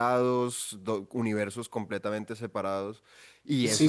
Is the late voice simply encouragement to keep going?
No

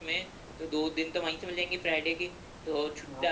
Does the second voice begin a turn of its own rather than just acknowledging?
No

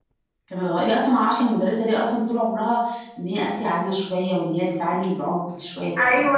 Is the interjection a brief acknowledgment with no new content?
No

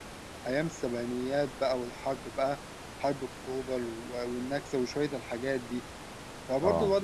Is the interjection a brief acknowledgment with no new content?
Yes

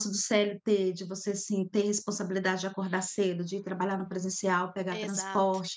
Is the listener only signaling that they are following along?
Yes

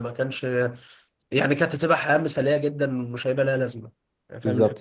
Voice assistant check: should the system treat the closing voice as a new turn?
Yes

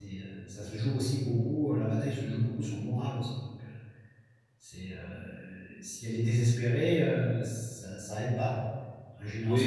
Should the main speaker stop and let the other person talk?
Yes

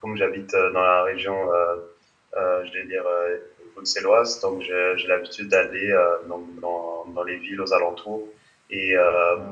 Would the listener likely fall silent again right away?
Yes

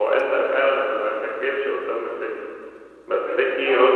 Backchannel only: Yes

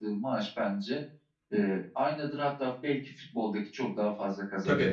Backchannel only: No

